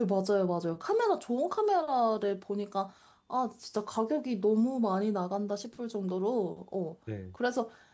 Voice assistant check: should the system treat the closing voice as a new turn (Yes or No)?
No